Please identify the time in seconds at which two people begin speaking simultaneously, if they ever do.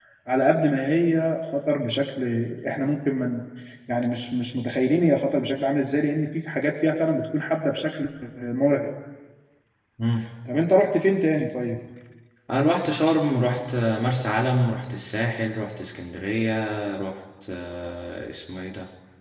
none

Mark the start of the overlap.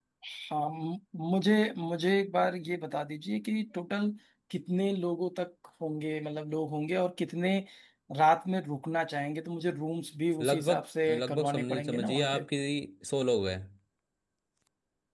10.4 s

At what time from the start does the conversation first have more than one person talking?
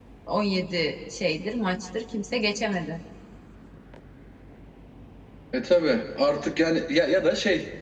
none

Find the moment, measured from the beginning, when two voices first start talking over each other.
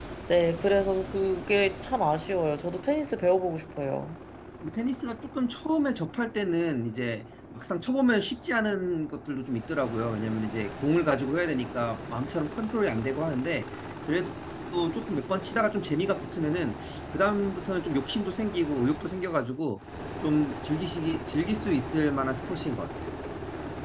none

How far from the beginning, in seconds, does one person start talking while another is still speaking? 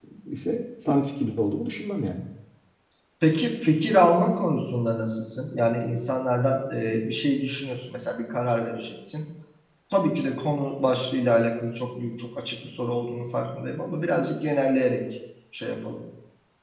none

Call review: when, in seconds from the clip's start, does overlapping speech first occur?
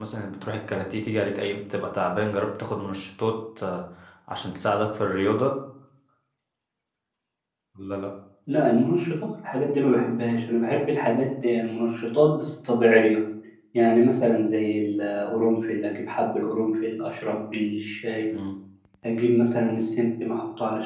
none

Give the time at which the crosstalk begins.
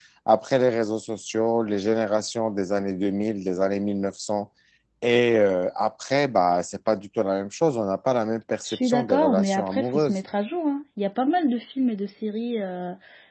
8.6 s

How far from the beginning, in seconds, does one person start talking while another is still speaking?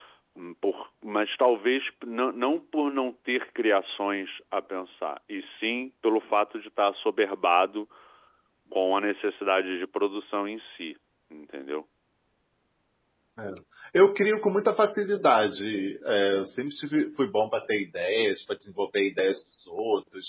none

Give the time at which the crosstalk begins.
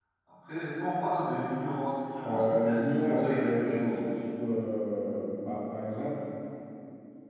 2.2 s

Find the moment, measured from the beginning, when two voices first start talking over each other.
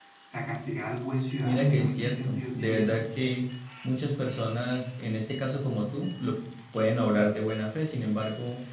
1.4 s

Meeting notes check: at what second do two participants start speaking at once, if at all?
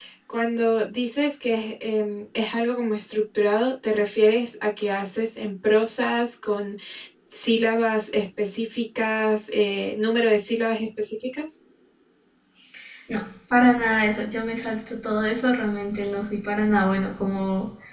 none

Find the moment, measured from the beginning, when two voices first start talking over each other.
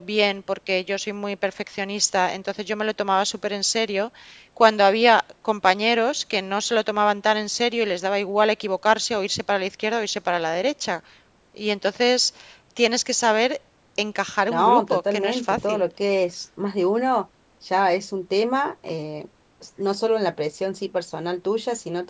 14.5 s

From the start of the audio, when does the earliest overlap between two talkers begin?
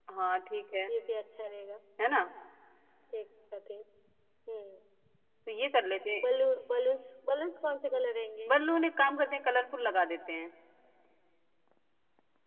none

